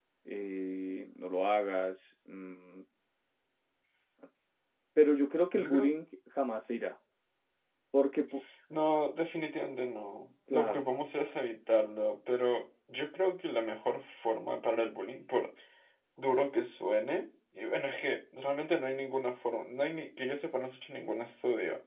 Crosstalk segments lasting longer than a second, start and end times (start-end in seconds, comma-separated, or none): none